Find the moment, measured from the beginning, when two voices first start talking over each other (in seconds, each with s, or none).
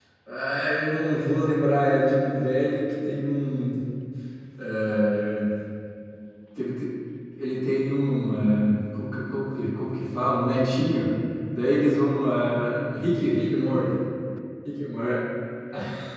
none